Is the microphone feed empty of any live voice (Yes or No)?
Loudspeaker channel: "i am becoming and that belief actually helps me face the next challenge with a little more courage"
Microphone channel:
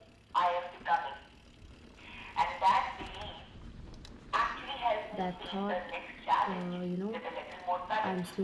No